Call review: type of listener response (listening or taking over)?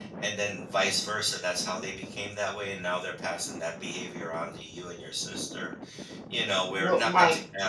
listening